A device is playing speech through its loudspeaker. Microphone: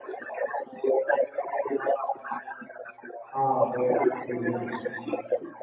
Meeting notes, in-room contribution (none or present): present